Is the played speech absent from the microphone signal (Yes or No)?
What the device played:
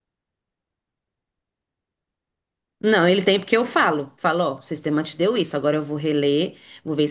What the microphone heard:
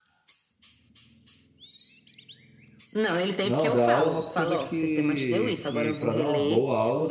No